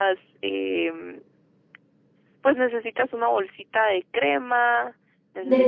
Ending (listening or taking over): taking over